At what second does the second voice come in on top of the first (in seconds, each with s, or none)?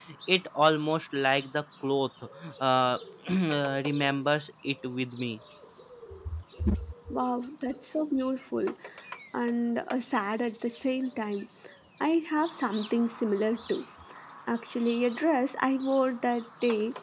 none